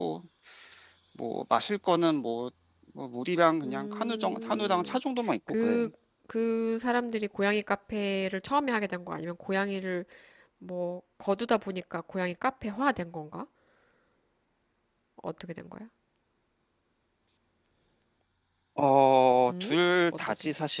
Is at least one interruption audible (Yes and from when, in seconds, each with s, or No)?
Yes, from 3.6 s